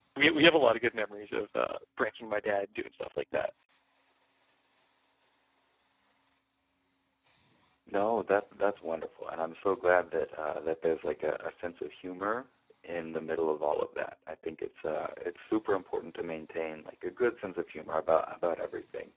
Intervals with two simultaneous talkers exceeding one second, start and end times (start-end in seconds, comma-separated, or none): none